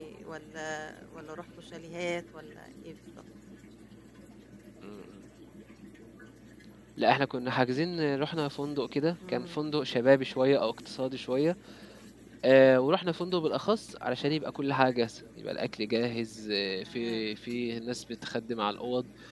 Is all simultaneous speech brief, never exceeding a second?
Yes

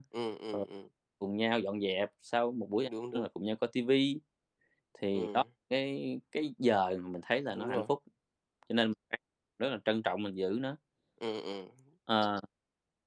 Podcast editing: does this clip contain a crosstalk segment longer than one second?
No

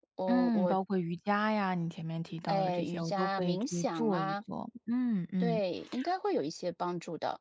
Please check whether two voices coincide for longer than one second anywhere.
Yes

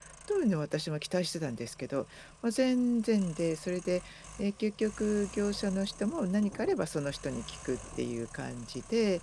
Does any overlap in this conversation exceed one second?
No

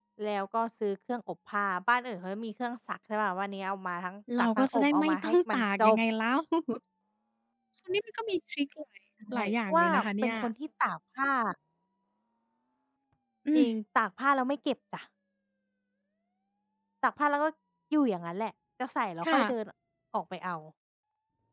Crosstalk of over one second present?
Yes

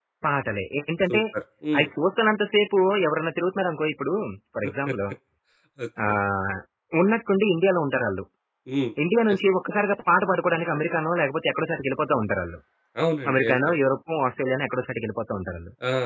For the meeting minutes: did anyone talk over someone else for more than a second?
No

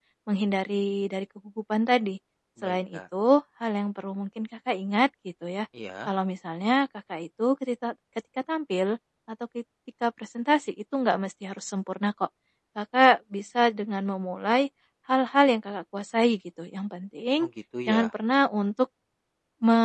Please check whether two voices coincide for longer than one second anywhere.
No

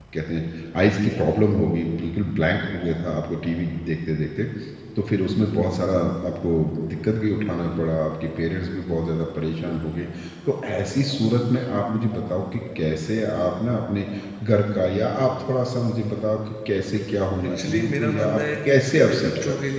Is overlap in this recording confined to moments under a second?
No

